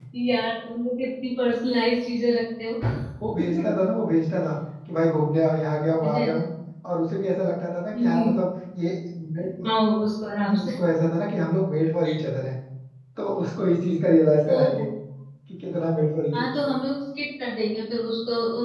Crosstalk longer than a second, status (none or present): none